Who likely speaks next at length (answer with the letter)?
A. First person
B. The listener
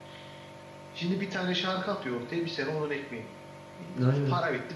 A